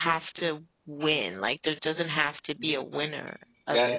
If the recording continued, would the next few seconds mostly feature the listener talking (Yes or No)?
Yes